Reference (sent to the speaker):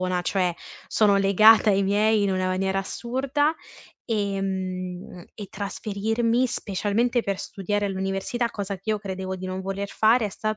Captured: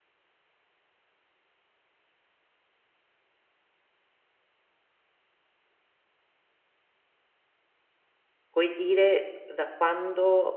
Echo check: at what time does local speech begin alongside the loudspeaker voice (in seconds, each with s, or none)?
8.5 s